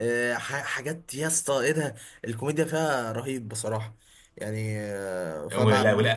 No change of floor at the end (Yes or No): No